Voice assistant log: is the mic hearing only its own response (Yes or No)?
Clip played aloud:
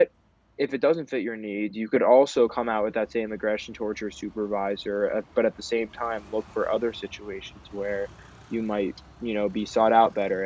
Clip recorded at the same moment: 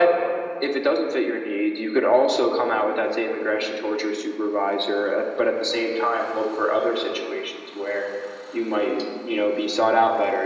Yes